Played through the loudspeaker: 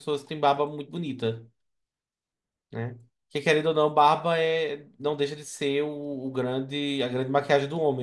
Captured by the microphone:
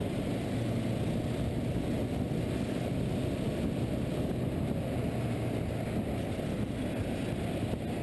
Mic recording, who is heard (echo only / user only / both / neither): neither